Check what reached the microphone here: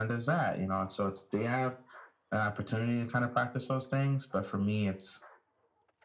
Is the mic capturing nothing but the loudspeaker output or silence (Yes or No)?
Yes